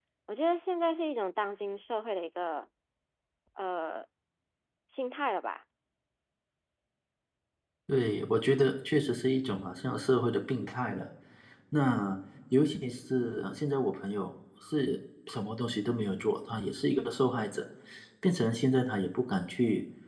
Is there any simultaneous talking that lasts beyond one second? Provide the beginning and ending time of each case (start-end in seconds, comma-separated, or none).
none